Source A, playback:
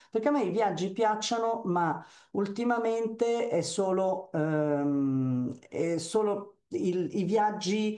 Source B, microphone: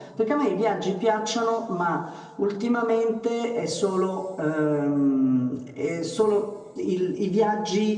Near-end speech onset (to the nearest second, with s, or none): none